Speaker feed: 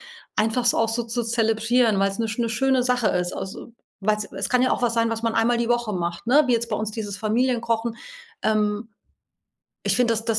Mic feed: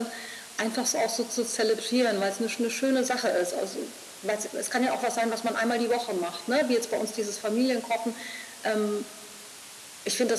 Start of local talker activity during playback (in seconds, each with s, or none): none